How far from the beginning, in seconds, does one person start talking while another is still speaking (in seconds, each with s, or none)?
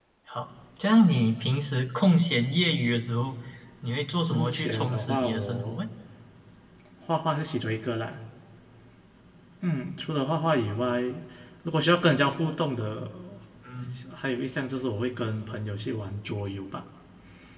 4.3 s